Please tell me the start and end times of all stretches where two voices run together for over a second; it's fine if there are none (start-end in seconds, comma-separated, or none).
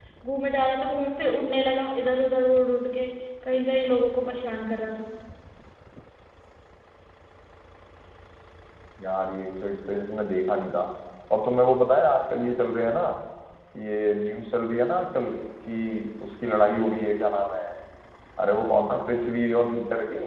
none